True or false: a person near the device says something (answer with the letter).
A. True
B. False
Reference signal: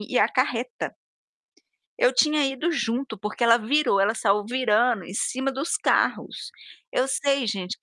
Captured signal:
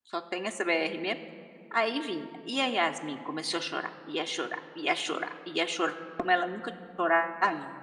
A